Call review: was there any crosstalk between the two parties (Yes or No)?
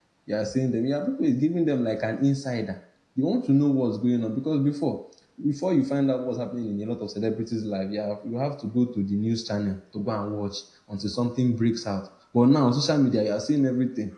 No